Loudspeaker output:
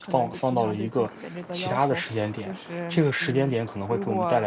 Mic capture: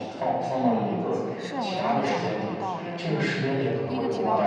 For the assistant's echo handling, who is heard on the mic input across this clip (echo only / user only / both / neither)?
both